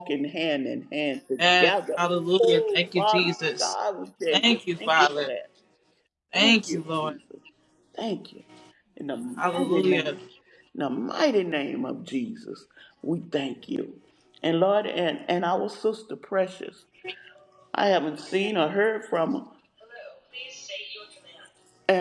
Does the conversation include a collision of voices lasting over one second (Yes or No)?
Yes